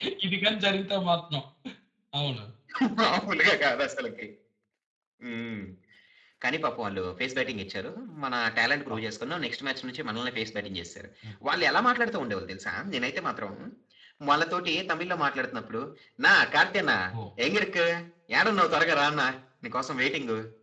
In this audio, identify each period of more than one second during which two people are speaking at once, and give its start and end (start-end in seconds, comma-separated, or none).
none